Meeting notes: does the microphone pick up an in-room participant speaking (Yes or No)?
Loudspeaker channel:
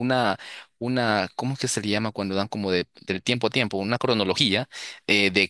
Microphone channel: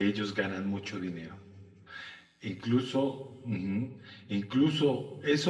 Yes